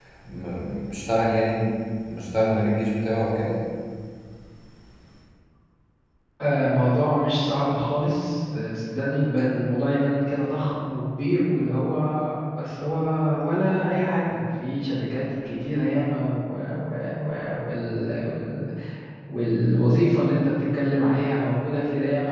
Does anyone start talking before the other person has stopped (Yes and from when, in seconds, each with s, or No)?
No